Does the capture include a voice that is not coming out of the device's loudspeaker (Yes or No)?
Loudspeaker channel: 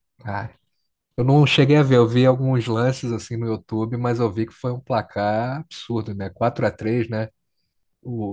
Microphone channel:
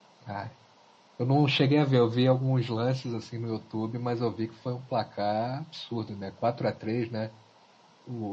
No